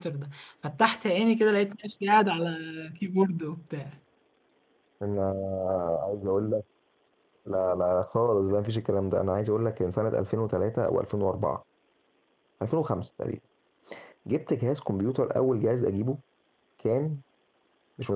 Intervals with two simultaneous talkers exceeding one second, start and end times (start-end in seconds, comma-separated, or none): none